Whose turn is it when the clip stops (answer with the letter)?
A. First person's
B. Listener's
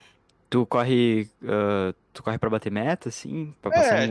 B